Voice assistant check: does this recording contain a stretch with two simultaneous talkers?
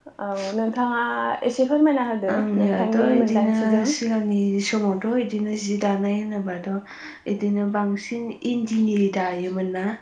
Yes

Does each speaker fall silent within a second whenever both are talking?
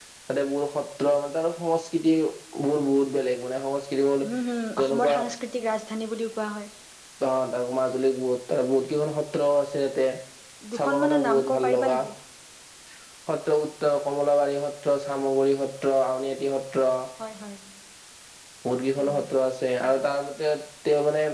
No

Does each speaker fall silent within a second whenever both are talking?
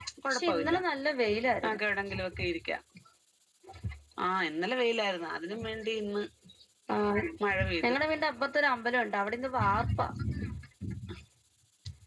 Yes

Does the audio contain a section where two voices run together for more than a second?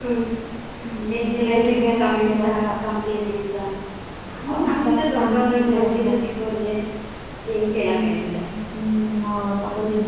Yes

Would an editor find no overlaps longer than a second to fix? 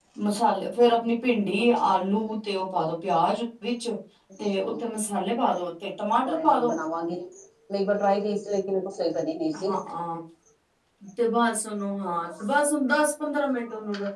Yes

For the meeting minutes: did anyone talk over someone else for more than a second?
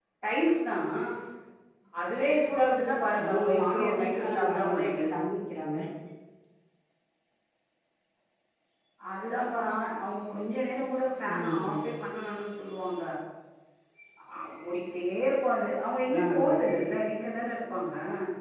Yes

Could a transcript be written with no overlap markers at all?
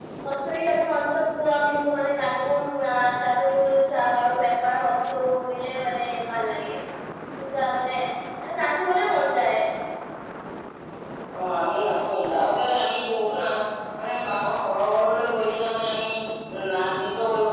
Yes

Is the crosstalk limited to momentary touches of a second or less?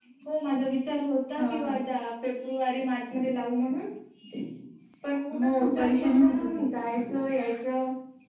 No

